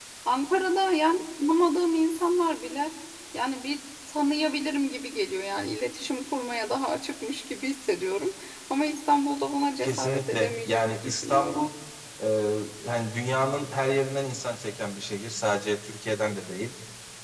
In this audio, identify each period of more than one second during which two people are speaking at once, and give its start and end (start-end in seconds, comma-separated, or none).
9.8-11.7